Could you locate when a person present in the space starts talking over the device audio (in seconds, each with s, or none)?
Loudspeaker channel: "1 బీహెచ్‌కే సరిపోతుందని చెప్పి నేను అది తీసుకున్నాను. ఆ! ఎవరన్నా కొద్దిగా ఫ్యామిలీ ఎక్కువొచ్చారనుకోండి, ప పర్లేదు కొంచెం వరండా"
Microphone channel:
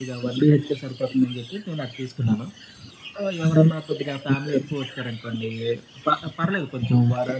none